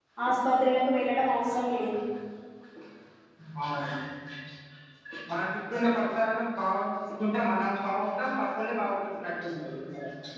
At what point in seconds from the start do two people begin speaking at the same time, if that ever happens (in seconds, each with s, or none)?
none